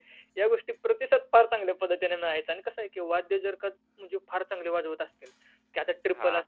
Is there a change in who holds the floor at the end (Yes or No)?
No